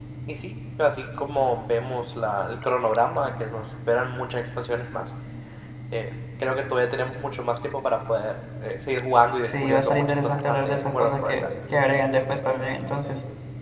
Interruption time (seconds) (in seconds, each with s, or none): 9.4 s